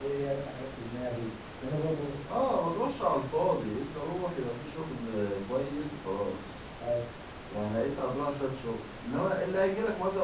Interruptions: none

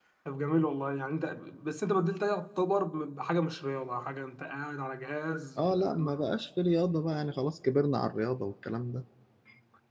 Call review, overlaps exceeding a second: none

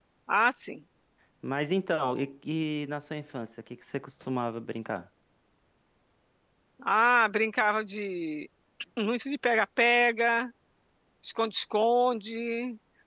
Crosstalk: none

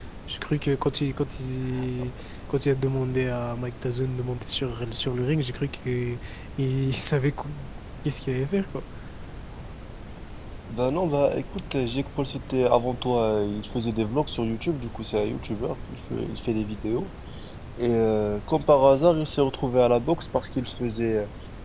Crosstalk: none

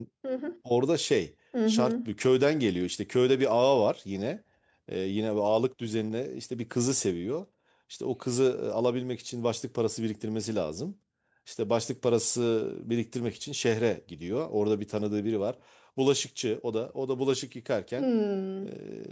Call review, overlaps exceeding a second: none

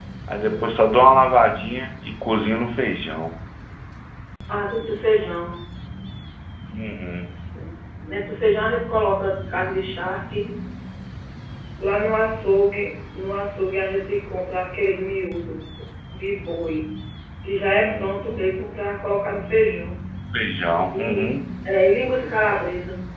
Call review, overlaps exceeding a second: none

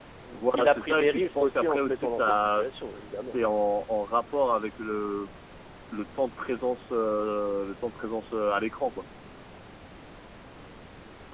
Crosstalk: present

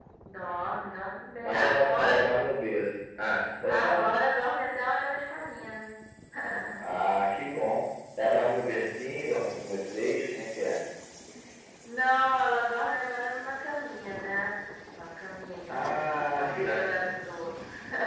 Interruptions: present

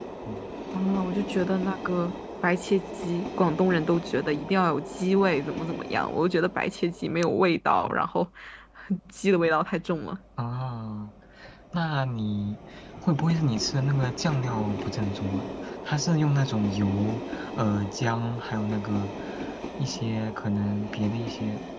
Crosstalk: none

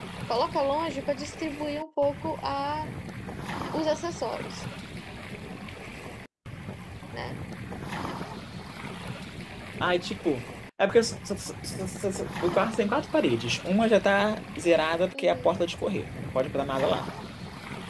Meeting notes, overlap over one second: none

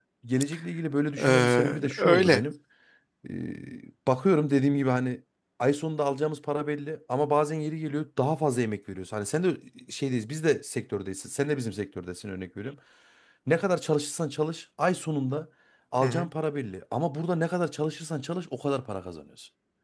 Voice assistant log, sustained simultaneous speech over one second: present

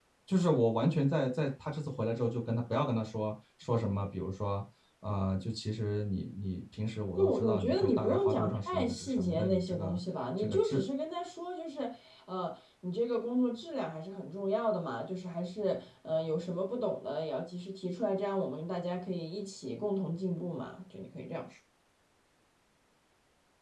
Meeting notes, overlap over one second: present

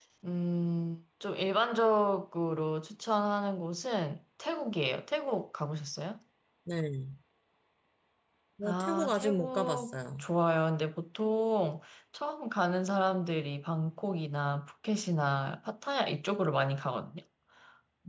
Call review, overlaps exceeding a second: present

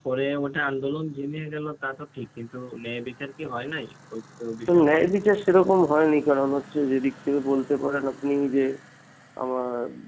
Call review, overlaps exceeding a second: none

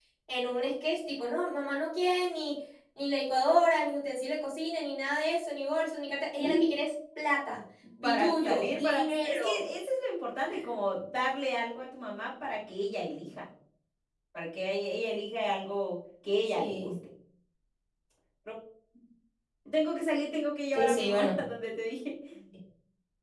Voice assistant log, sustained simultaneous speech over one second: present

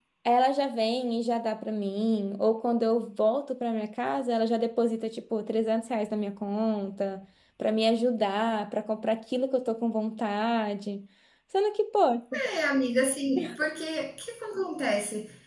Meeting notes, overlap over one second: none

